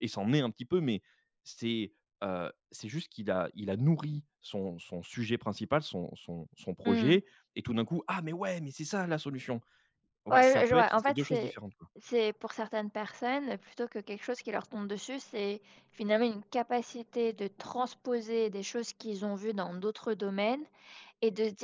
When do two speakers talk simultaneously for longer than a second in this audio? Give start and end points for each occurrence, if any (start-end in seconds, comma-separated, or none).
10.3-11.5